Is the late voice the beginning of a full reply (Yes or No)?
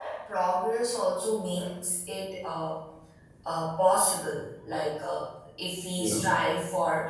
No